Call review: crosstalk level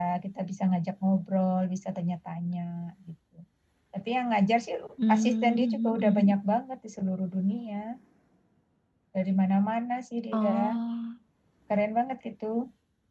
present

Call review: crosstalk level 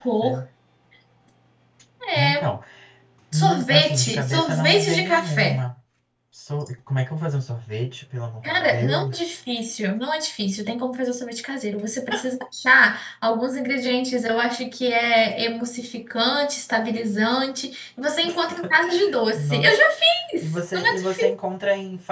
present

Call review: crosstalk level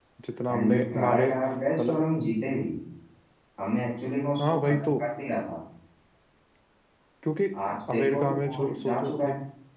present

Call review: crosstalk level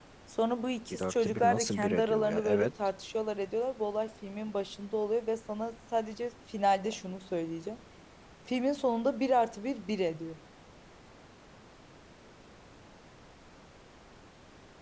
present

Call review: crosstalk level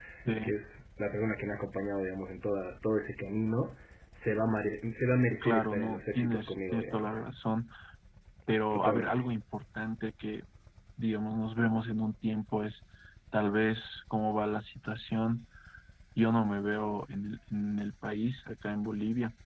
present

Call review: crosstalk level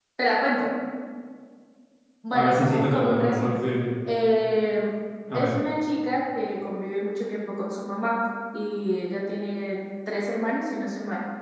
present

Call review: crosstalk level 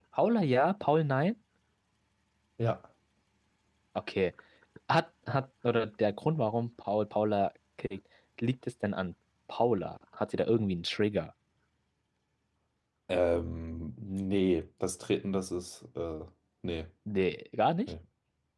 none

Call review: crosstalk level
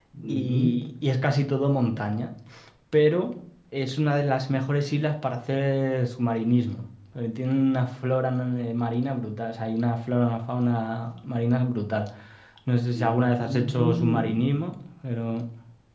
present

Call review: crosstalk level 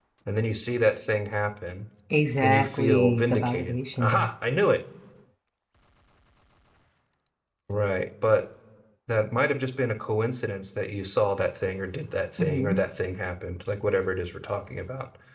present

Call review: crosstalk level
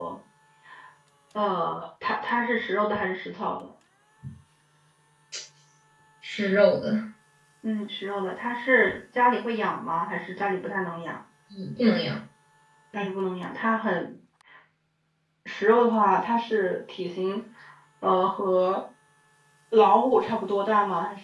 none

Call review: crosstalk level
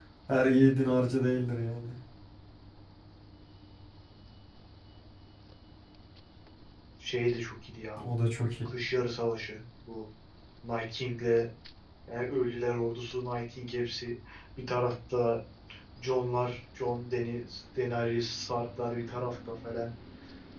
none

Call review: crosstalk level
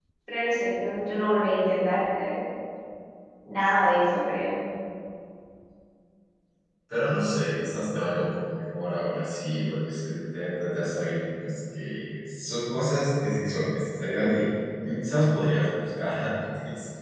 none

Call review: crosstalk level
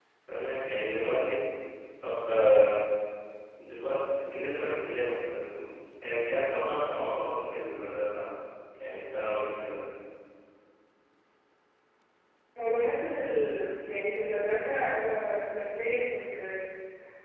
none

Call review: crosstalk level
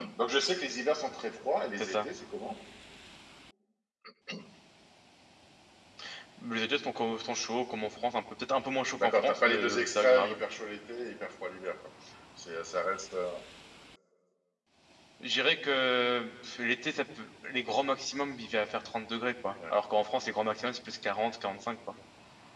present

